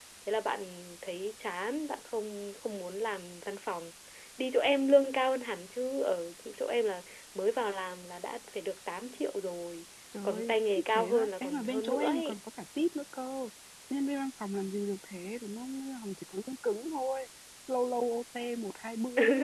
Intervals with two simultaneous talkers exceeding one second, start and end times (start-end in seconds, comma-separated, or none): 10.2-12.4